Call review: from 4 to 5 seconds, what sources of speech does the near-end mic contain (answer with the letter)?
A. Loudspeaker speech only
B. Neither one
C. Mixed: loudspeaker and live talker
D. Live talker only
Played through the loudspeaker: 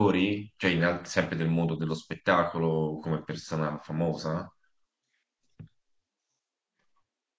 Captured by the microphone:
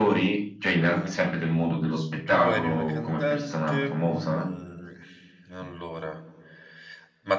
C